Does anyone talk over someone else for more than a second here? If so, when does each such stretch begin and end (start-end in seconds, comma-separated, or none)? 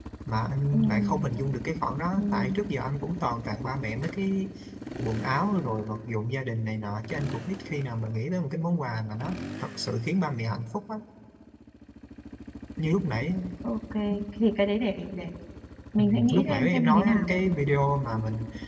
16.0-17.2